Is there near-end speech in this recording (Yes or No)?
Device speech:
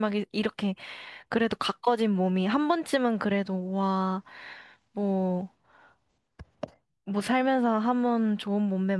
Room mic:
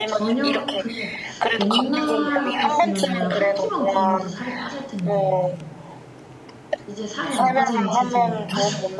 Yes